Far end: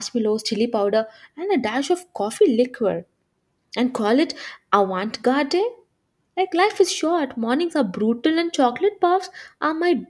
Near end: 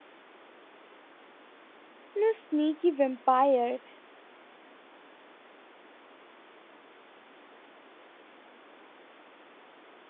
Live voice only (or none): no sneaky vampire,